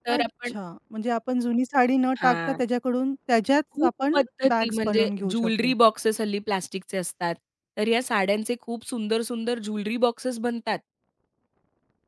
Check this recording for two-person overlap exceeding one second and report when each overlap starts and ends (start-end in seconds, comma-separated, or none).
3.8-5.7